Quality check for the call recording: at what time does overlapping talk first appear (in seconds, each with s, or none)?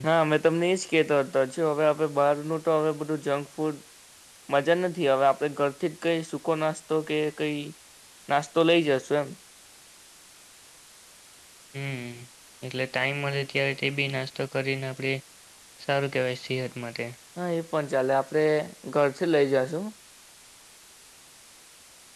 none